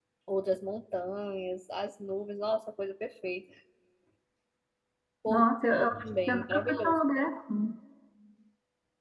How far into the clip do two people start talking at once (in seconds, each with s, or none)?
5.3 s